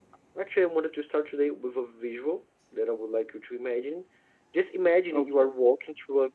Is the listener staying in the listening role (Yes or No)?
Yes